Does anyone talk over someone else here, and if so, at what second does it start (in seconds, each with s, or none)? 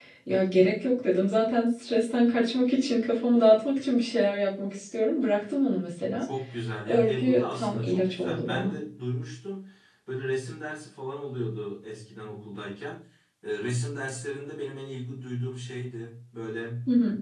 6.9 s